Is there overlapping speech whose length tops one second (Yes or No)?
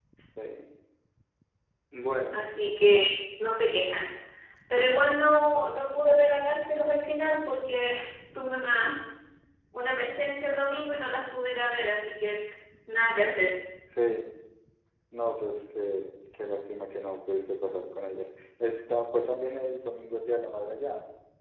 No